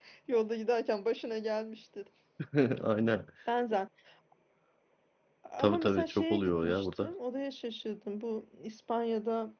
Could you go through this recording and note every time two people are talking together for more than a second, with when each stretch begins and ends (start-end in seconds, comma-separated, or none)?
5.6-7.1